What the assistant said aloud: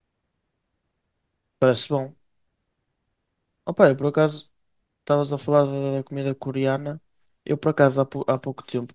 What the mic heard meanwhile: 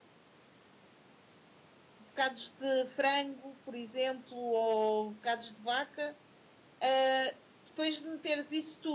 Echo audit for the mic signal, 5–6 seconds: user only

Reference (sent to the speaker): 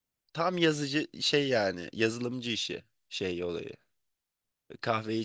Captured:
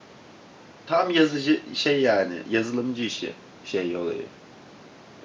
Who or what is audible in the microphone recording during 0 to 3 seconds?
echo only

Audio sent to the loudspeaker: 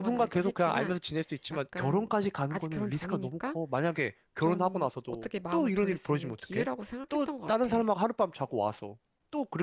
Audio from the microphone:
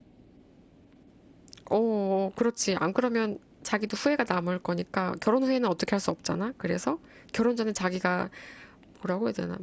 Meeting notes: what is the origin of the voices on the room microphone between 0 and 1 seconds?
neither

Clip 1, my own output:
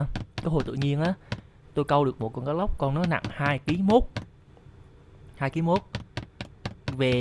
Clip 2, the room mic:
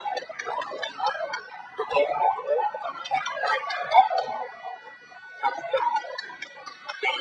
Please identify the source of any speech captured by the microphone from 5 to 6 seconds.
echo only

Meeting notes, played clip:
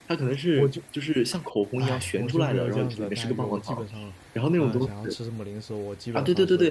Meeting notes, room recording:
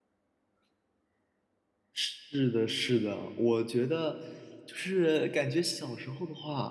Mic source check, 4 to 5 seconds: user only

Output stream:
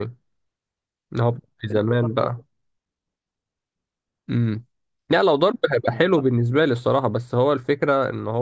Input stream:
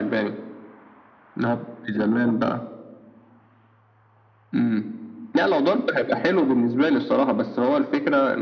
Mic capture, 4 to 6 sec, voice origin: echo only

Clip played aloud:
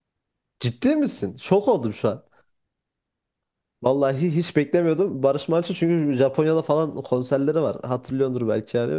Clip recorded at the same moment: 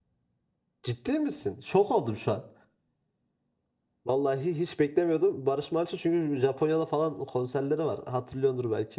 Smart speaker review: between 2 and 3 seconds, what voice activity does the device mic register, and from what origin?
echo only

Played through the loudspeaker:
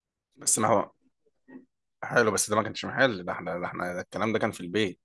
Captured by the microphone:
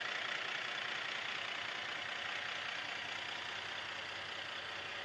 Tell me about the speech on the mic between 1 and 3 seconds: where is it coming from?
neither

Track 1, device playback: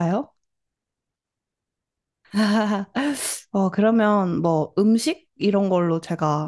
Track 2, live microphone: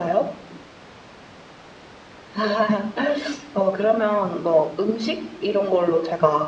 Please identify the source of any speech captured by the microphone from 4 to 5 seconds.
echo only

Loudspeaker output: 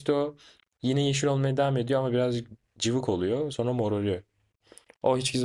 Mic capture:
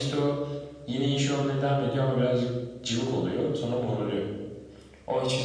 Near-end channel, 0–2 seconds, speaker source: echo only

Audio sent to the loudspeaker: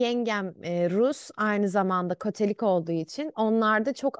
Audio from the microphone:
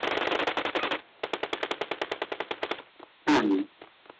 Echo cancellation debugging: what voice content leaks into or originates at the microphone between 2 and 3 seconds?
neither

